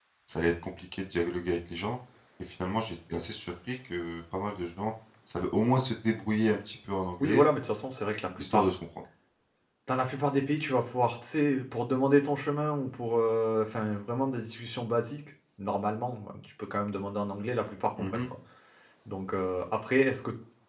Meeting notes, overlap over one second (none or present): none